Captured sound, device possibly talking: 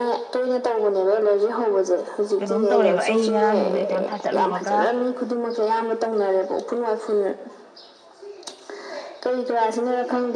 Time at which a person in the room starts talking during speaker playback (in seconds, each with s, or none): 2.4 s